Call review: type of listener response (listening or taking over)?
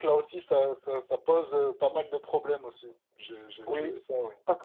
taking over